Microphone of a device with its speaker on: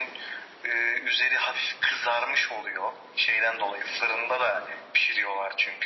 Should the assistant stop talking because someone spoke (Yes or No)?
No